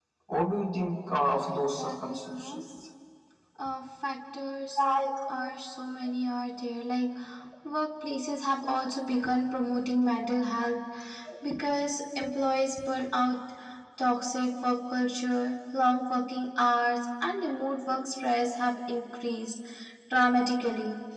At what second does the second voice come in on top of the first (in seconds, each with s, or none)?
1.2 s